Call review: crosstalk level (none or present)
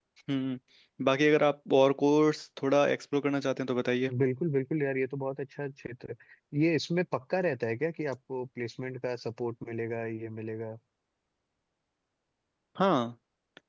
none